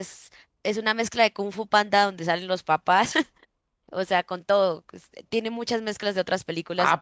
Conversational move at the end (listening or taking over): taking over